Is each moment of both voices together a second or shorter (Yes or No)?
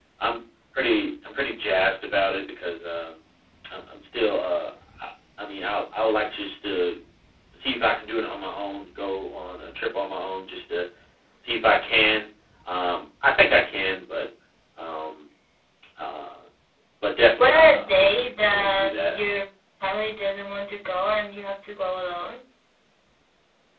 No